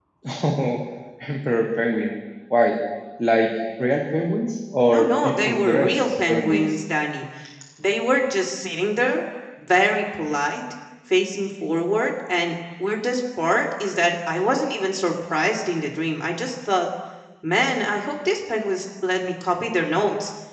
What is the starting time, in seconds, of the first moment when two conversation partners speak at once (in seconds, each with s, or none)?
4.9 s